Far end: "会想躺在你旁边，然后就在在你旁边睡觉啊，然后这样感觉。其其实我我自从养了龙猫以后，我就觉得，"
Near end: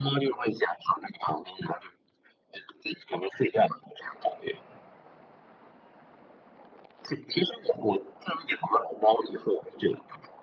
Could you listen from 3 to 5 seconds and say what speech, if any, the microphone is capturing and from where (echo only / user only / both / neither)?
echo only